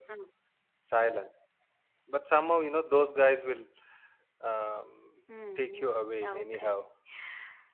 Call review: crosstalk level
present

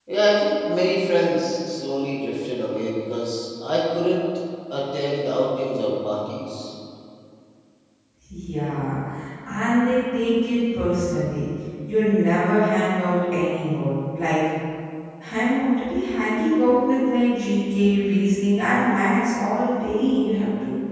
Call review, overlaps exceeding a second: none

